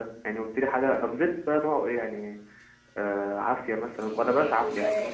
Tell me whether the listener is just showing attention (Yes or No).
No